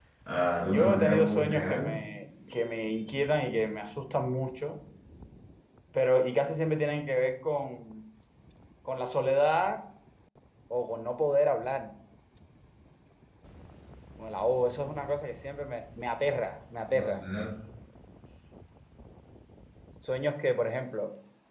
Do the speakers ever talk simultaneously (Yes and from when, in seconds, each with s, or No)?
Yes, from 0.7 s